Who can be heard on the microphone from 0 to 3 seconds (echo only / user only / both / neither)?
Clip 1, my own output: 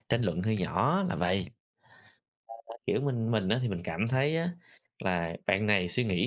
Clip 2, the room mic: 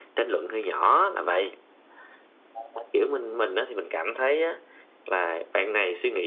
echo only